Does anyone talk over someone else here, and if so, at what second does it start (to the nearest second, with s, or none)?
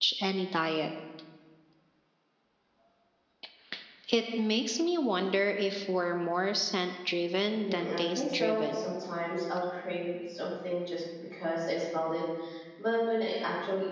8 s